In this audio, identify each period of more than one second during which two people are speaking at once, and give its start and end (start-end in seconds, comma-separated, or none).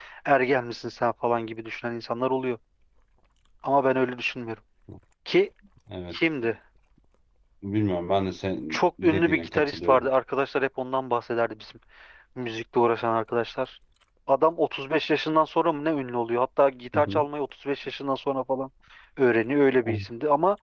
8.7-10.1